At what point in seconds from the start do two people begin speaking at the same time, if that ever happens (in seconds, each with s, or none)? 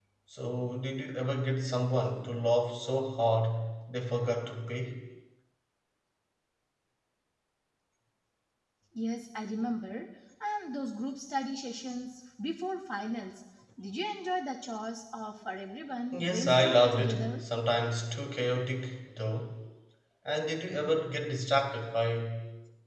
16.1 s